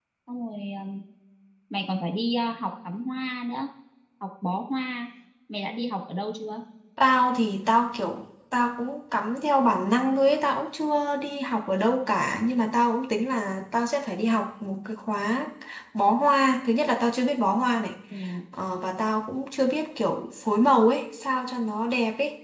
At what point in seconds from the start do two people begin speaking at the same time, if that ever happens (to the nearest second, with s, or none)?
none